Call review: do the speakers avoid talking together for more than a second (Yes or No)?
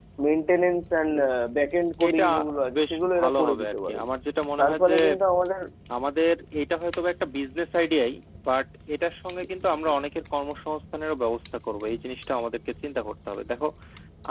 No